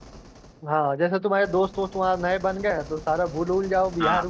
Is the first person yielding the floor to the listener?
No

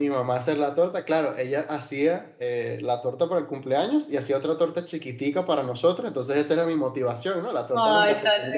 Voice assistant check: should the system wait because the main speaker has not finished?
No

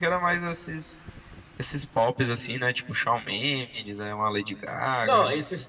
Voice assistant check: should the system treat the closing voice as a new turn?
Yes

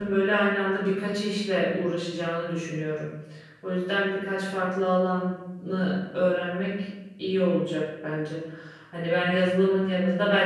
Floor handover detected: No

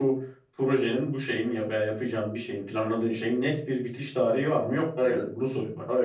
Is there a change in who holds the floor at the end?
Yes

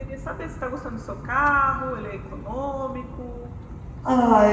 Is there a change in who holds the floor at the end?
Yes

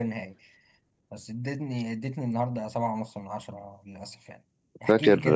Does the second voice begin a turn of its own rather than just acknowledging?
No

